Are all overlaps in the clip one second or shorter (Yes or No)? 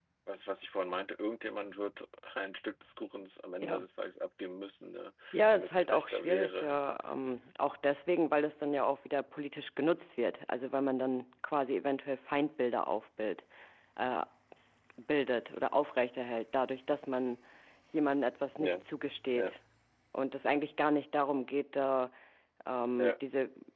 No